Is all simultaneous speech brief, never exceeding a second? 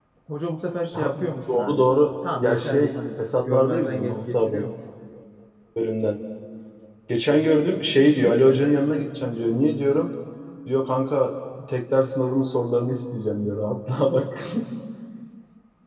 No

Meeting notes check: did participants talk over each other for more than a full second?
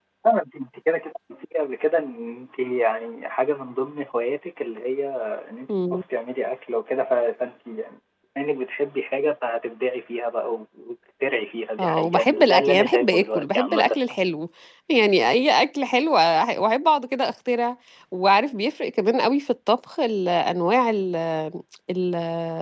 Yes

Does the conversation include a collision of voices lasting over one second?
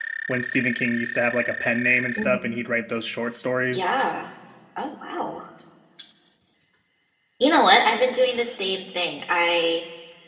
No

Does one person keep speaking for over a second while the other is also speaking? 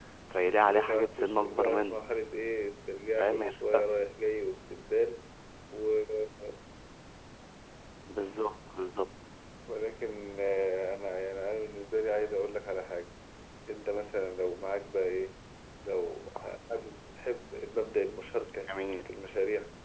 Yes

